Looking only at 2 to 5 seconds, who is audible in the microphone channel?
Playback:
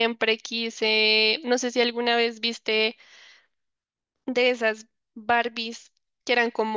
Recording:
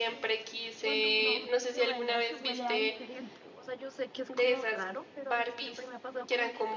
both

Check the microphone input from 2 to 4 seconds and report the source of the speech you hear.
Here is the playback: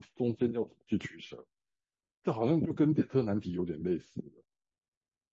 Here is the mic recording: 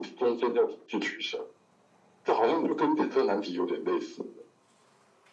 echo only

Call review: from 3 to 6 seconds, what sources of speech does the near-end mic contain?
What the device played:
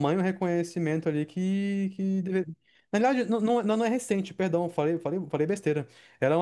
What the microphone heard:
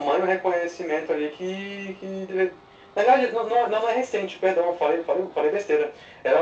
echo only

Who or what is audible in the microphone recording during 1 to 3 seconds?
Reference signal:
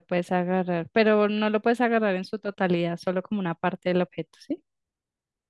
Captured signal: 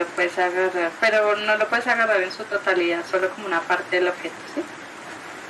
echo only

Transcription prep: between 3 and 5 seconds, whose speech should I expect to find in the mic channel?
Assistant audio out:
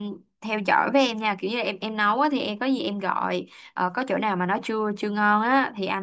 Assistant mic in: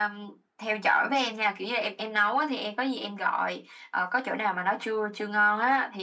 echo only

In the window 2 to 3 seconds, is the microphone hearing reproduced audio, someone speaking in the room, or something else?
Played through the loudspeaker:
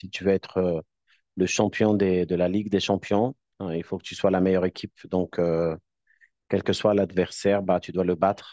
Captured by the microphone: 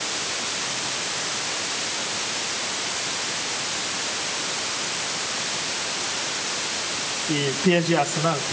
neither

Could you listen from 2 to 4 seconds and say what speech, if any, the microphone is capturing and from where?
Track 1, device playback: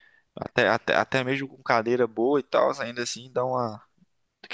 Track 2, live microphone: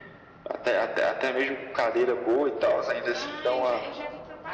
both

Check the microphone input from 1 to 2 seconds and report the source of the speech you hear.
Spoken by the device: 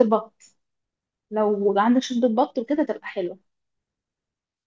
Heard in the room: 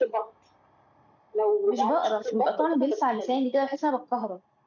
both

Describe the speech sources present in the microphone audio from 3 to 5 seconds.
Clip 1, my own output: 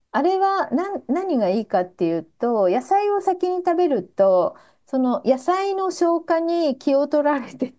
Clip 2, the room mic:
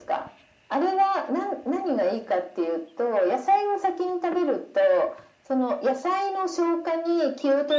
echo only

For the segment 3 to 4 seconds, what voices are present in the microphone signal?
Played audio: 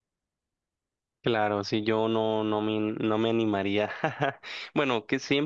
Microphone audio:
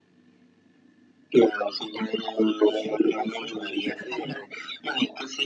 both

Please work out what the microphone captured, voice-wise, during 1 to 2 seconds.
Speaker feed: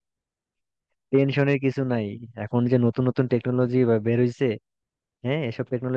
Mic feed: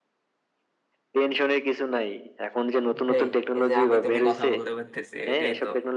echo only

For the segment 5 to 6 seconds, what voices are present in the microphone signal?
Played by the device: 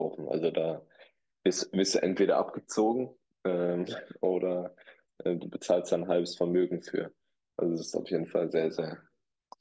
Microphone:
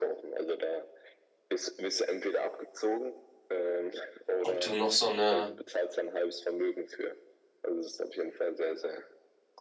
both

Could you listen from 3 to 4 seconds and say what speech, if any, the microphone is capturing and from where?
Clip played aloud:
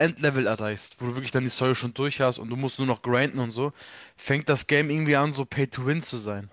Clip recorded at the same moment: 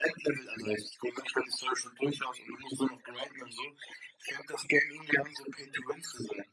echo only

